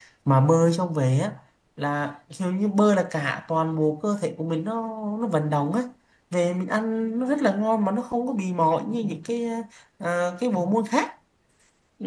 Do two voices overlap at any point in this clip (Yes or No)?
No